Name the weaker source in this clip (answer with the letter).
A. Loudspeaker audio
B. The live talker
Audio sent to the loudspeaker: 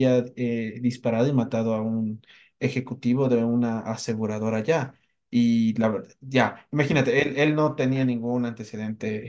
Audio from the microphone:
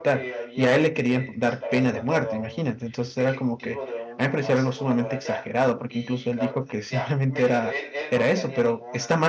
A